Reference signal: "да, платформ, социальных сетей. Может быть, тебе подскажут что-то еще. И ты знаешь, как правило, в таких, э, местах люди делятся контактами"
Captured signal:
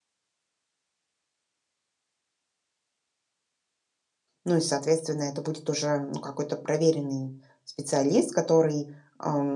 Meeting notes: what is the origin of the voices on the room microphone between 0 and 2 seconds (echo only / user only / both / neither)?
neither